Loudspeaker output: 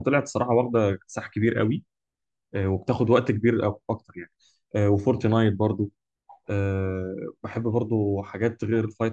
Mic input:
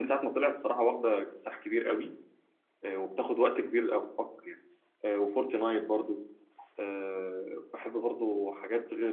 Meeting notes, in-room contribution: none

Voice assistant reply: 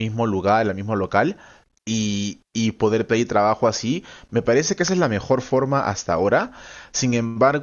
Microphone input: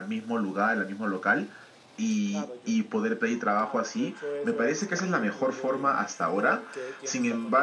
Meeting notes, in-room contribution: present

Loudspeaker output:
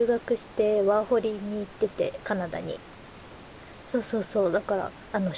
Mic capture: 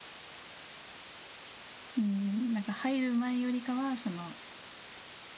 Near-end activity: present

